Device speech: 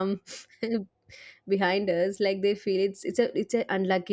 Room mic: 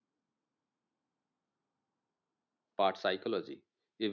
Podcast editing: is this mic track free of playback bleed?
Yes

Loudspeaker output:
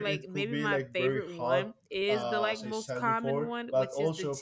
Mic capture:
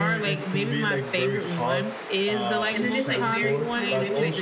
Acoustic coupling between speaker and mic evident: Yes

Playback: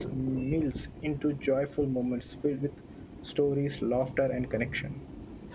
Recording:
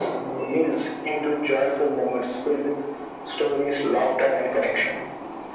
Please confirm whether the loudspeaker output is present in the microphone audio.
Yes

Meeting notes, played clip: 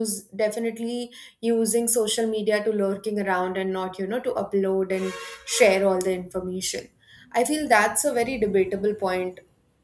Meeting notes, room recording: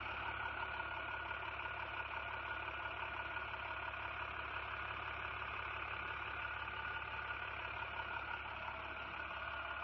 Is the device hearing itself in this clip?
No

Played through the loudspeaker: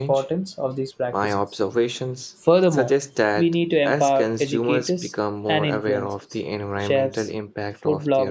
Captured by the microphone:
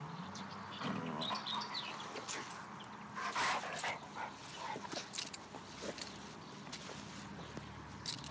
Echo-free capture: Yes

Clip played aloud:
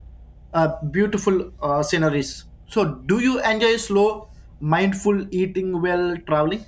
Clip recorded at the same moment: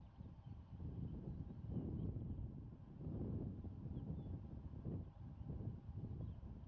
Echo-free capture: Yes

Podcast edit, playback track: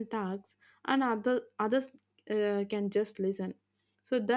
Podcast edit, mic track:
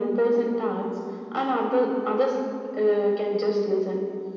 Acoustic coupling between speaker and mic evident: Yes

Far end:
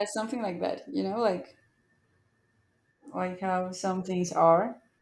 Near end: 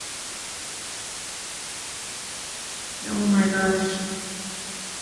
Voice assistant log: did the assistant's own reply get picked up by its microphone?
No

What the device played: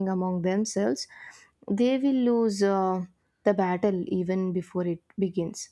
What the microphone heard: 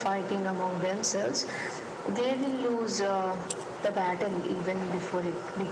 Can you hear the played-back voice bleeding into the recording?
Yes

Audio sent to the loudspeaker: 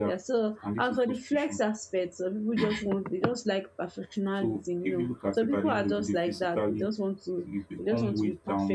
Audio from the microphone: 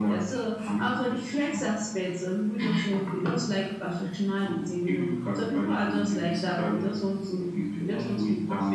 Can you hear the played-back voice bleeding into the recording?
Yes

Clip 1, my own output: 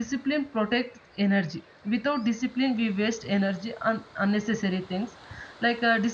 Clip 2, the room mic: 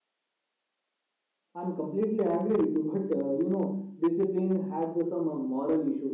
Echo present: No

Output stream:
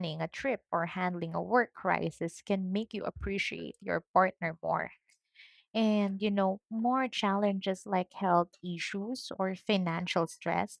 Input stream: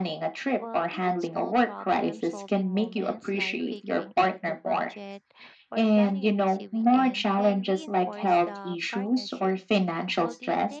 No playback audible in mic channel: No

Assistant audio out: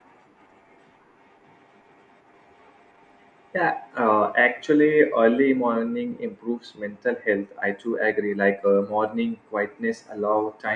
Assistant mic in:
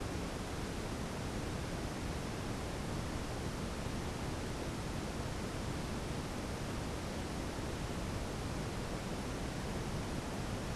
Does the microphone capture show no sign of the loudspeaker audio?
Yes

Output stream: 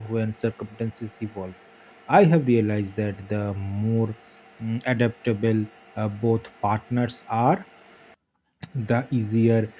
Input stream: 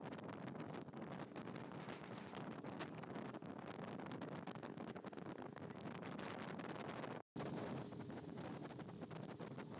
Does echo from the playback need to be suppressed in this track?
No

